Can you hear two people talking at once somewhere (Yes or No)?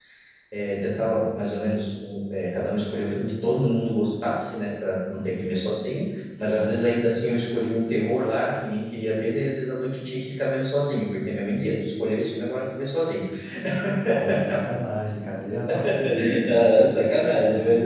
Yes